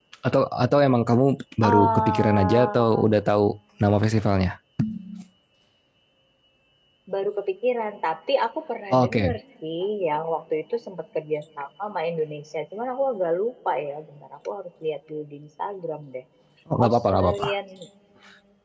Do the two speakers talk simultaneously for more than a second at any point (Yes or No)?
Yes